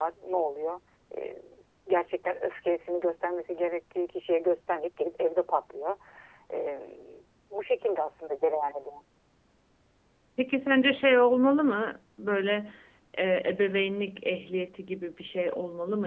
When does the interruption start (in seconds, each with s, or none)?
none